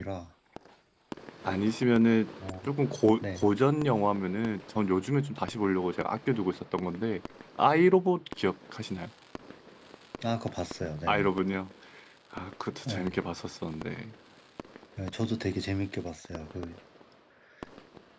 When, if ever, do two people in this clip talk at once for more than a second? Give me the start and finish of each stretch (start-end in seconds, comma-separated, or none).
none